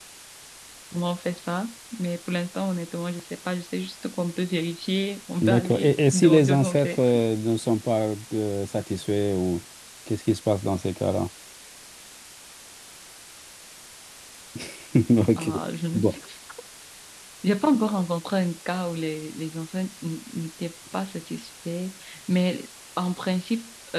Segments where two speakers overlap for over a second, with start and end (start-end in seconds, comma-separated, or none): 5.4-7.2